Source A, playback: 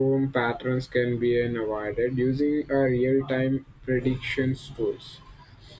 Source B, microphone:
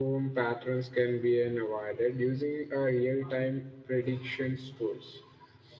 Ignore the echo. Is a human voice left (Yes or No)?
No